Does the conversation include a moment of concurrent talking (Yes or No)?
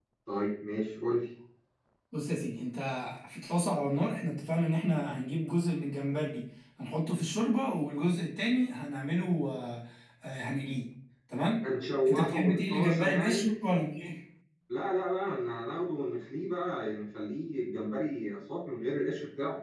Yes